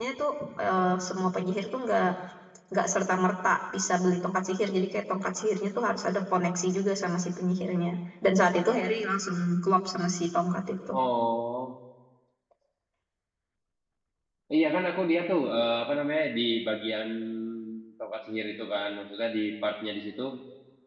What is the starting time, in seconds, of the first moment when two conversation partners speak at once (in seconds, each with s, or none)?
none